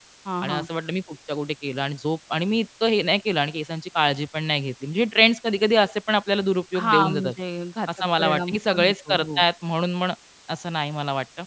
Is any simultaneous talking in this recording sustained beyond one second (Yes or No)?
Yes